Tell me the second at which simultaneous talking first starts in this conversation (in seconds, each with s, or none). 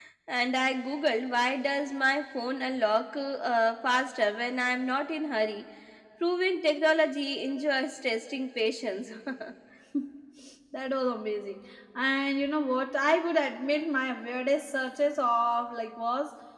none